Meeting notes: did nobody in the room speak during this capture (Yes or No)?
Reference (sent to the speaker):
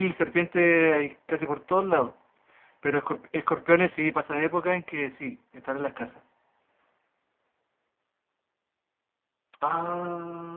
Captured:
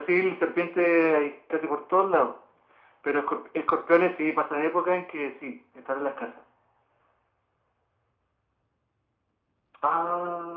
Yes